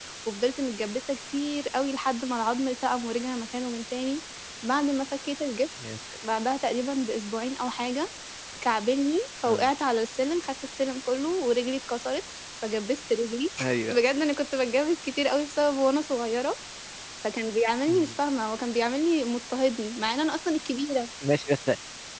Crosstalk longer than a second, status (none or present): none